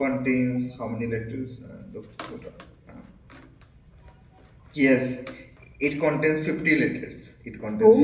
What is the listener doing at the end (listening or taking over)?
taking over